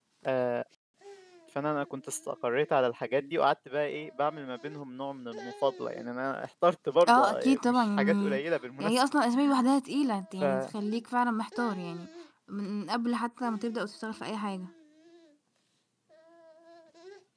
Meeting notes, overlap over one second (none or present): present